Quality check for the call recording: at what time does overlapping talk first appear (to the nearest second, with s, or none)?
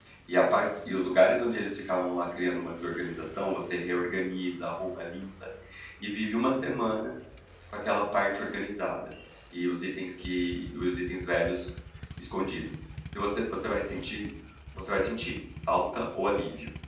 none